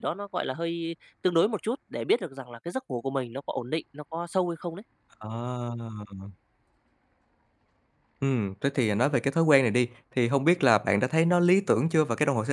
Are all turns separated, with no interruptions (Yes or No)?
Yes